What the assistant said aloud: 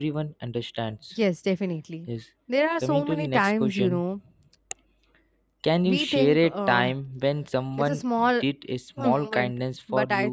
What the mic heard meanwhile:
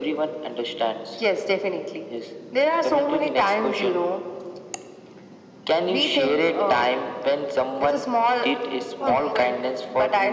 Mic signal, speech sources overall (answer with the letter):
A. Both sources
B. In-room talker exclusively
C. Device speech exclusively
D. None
C